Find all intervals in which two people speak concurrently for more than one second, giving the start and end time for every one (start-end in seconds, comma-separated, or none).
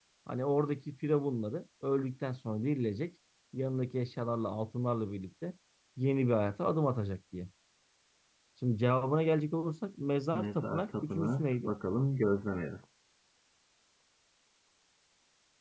10.3-11.7